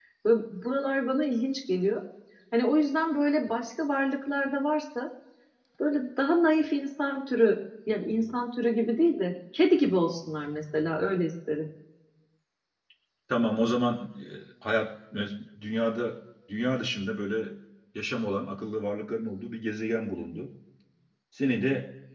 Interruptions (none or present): none